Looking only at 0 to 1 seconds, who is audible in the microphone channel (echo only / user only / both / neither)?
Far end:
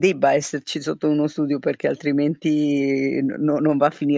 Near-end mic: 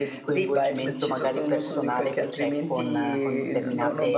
both